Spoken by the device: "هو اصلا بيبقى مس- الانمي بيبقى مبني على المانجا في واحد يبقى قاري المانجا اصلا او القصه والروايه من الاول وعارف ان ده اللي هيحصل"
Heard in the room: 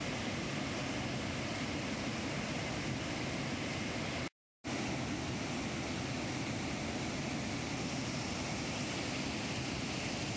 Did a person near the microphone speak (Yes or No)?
No